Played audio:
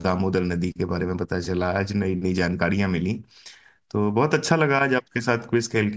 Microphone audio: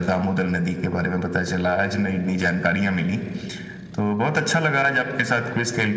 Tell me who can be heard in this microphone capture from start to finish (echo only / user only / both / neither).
echo only